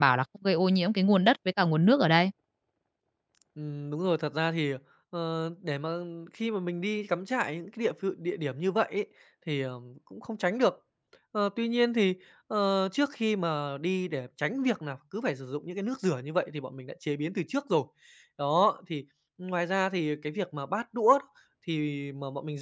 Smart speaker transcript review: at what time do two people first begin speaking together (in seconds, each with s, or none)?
none